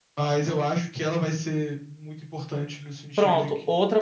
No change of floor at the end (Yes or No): No